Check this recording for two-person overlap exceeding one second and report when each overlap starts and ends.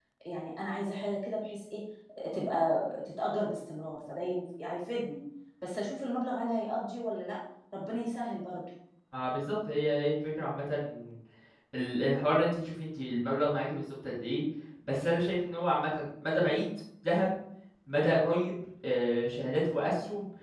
none

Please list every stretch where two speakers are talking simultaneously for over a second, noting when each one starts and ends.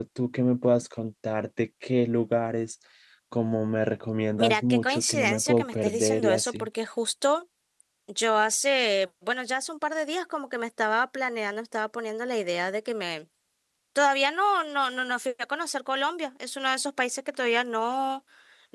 4.4-6.7

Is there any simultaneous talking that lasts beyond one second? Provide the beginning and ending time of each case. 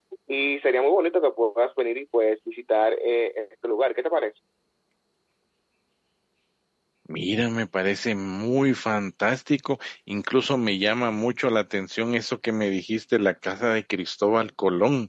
none

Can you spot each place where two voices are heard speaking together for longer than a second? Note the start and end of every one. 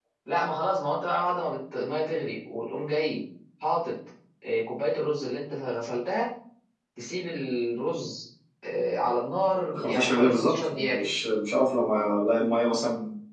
9.8-11.1

